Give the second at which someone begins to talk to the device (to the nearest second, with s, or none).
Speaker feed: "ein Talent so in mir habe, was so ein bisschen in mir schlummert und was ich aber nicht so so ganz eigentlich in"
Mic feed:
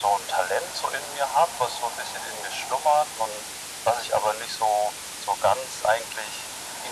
none